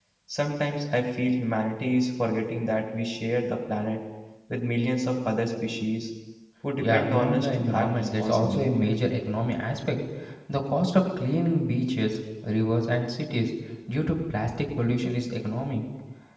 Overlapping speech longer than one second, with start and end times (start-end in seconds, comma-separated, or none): 6.8-8.7